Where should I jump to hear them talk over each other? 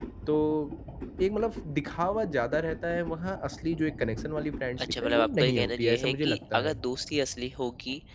5 s

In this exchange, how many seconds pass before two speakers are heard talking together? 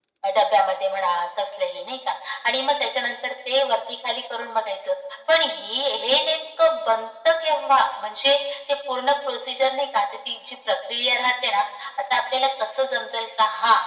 none

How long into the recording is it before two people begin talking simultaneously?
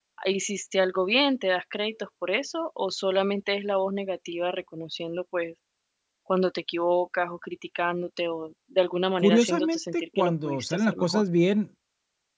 9 s

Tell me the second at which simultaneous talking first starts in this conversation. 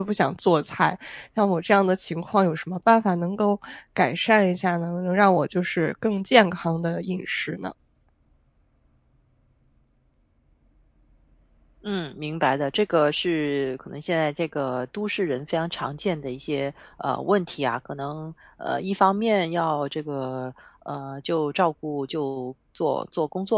none

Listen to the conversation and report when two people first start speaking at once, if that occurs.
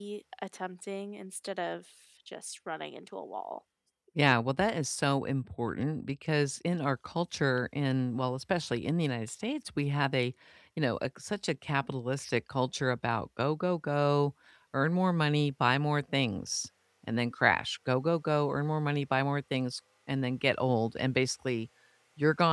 none

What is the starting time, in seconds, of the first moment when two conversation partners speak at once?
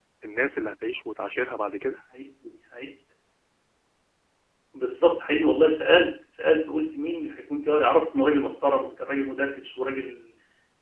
none

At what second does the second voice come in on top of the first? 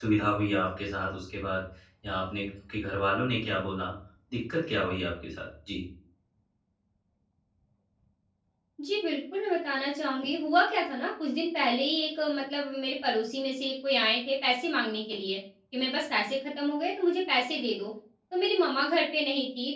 none

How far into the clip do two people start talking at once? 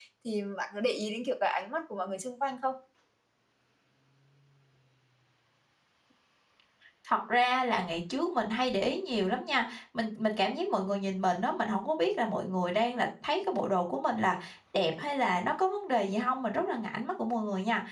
none

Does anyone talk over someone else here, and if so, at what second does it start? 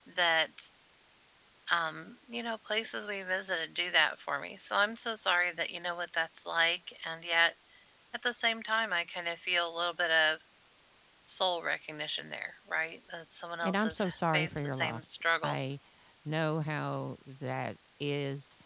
14 s

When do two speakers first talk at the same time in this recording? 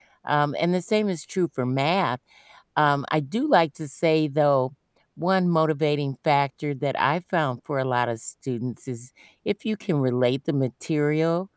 none

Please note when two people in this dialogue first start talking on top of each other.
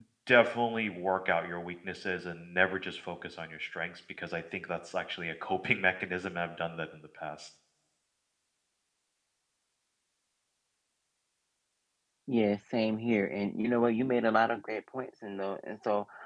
none

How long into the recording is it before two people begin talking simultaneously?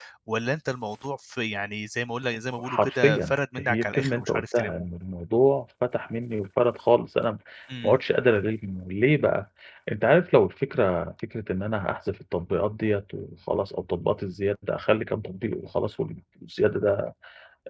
3 s

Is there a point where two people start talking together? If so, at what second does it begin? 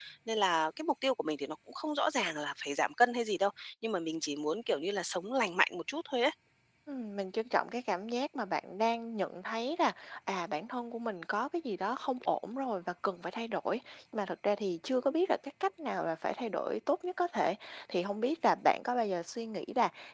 none

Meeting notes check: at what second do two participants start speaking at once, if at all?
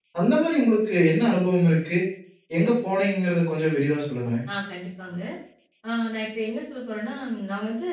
none

